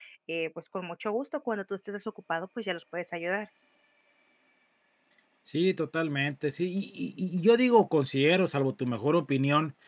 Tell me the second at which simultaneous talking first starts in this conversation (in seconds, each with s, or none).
none